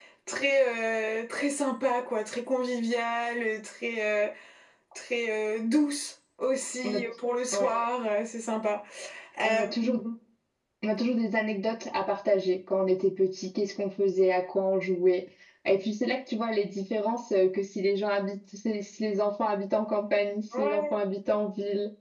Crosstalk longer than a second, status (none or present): none